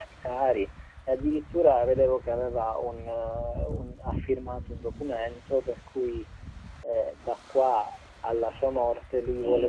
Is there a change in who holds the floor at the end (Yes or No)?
Yes